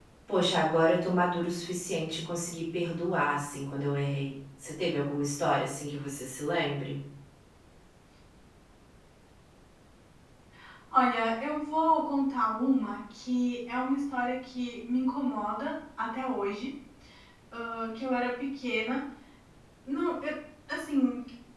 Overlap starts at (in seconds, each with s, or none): none